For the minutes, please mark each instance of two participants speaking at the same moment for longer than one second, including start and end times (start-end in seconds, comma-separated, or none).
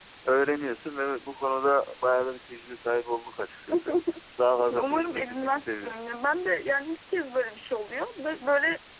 4.7-6.0